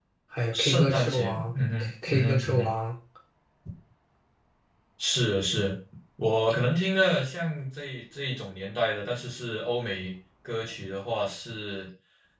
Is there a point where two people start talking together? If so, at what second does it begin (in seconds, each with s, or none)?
0.5 s